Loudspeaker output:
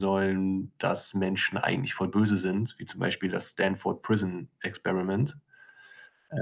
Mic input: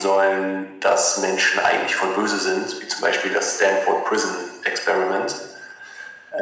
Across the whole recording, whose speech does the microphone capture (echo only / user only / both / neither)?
echo only